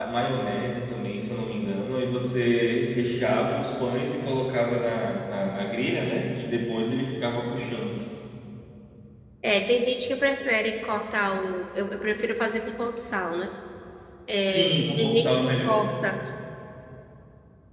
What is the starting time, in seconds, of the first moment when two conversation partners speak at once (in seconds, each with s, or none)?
14.4 s